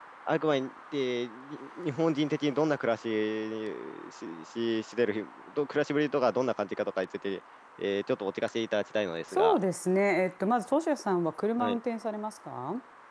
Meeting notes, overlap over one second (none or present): none